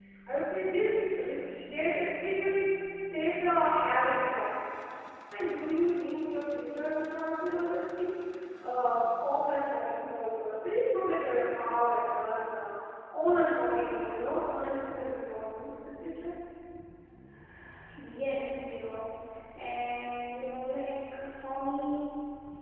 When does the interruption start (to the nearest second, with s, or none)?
none